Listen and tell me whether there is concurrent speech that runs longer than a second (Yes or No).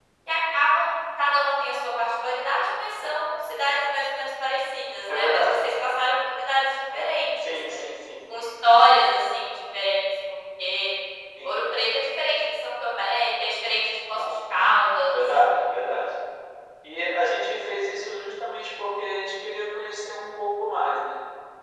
No